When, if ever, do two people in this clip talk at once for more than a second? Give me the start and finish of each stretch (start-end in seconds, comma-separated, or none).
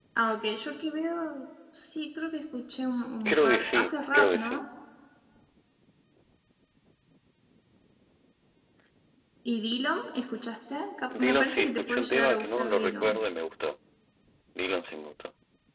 3.3-4.6, 11.2-13.2